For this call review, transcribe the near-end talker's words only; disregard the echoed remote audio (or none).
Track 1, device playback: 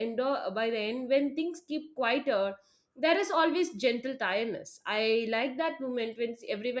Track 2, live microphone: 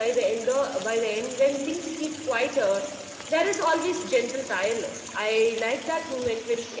none